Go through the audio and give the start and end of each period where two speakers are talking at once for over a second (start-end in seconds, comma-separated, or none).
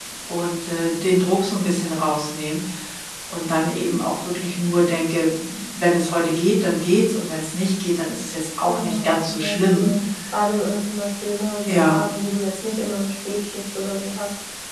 8.6-9.9